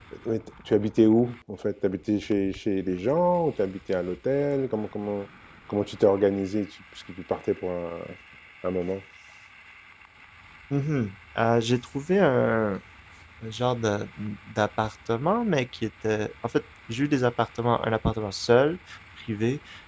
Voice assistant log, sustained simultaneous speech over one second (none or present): none